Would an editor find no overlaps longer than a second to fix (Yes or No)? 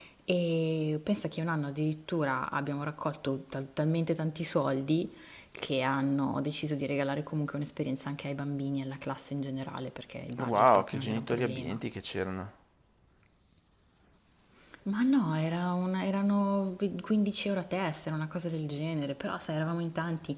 No